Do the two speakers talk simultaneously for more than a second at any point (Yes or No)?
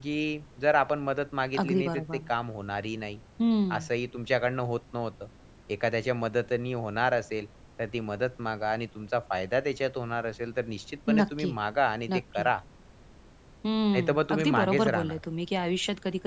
Yes